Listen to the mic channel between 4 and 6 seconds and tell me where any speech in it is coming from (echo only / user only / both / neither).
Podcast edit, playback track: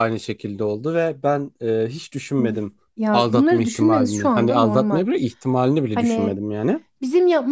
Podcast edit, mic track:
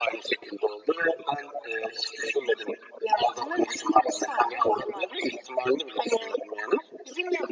echo only